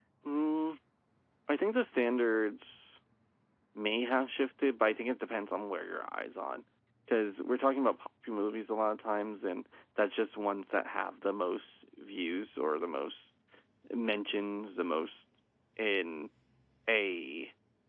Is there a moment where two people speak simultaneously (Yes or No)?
No